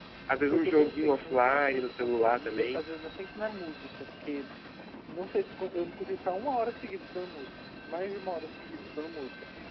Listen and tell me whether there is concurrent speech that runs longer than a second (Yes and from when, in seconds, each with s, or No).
Yes, from 0.5 s